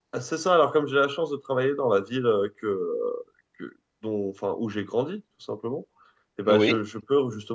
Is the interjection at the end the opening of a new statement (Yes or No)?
No